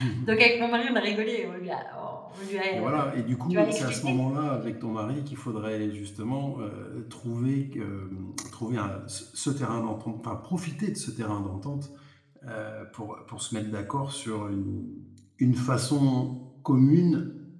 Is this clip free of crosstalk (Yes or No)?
No